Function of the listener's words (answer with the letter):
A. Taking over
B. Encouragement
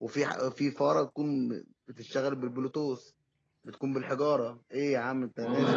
A